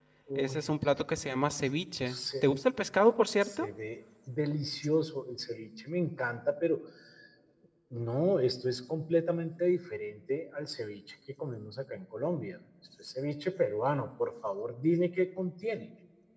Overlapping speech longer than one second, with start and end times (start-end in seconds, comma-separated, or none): none